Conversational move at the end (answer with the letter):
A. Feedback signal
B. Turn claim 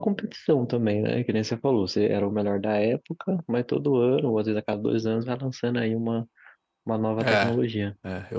B